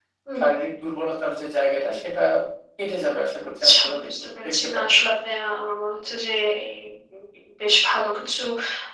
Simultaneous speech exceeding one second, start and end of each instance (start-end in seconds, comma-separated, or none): 3.6-4.9